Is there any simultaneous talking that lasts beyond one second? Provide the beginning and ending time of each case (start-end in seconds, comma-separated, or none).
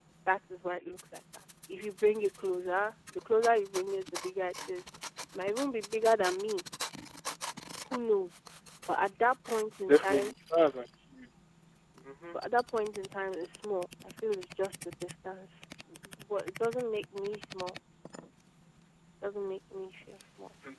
none